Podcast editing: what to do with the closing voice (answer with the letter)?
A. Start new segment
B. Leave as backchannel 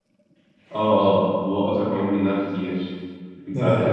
B